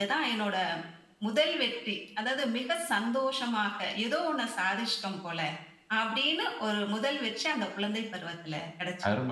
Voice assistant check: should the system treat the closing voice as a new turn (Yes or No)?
Yes